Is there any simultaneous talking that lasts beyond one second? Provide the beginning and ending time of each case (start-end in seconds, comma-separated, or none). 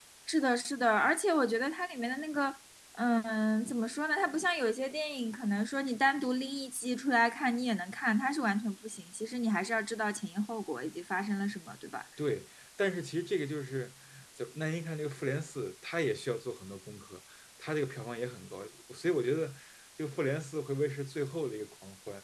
none